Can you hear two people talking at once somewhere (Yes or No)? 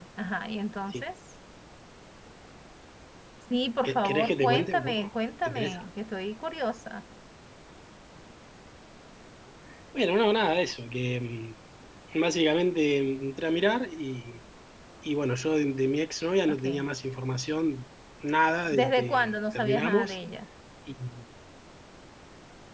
Yes